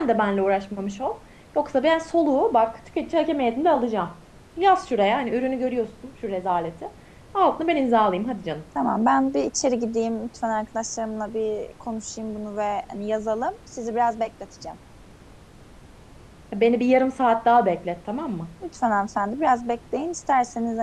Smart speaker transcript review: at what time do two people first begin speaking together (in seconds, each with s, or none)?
none